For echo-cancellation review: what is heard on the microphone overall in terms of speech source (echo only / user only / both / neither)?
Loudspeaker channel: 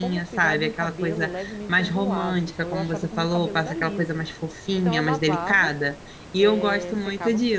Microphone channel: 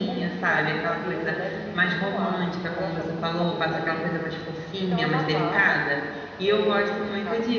echo only